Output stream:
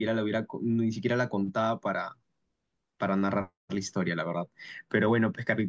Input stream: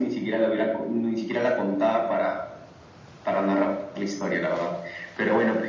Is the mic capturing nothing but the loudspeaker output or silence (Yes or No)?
Yes